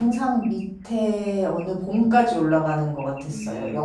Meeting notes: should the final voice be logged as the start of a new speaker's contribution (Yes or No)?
Yes